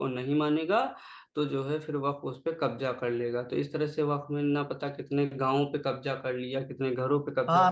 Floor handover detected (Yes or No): Yes